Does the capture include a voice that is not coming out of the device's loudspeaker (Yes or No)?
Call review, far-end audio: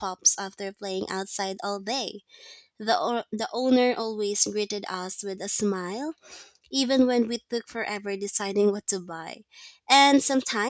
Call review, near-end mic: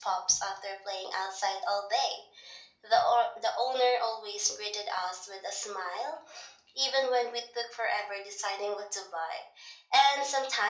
No